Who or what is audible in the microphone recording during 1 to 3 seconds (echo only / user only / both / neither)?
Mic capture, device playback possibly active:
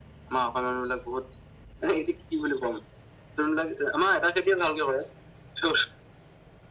echo only